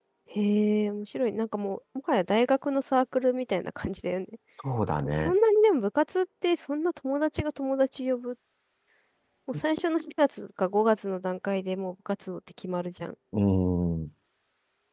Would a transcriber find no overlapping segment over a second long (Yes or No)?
Yes